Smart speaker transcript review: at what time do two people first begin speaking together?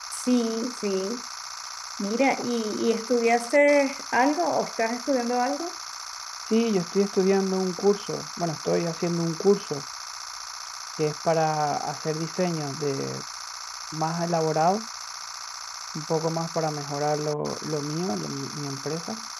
none

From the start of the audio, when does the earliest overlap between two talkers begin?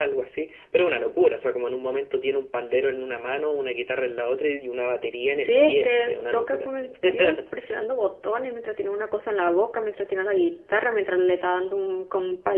5.2 s

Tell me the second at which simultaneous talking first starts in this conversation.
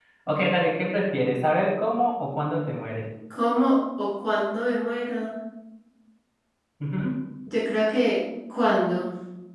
none

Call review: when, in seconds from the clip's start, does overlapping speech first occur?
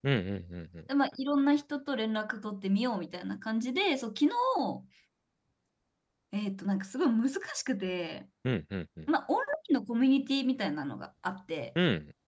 none

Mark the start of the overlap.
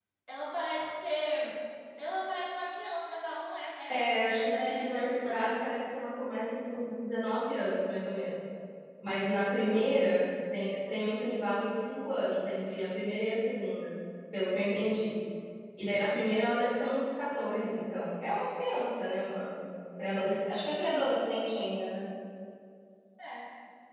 3.9 s

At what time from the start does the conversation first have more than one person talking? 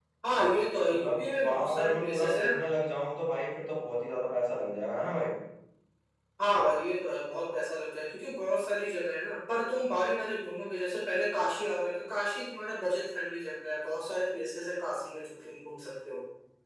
0.9 s

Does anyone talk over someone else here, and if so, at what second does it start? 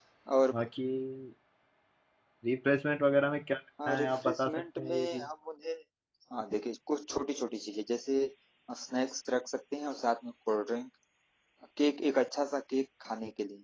3.8 s

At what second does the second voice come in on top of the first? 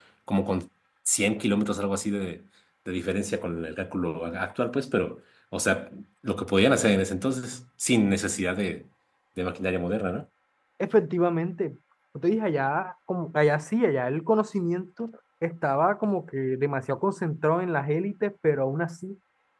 none

